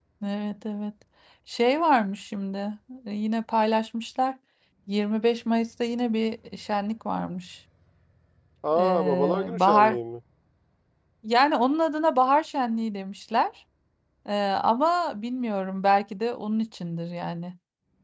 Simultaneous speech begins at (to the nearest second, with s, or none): 9 s